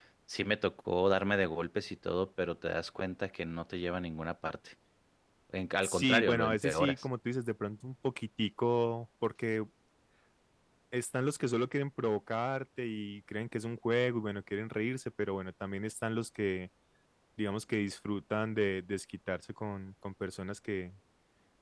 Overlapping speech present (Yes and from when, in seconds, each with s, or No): Yes, from 5.8 s